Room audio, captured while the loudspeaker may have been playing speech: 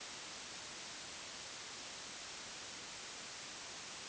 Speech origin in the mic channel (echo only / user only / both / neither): neither